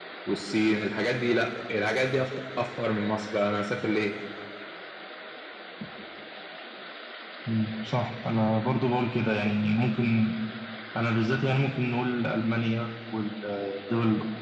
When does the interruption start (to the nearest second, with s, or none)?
none